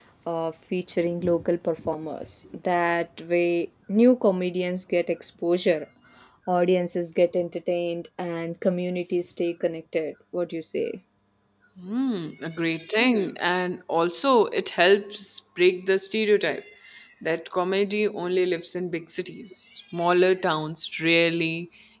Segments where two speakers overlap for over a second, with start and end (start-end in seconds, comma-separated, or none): none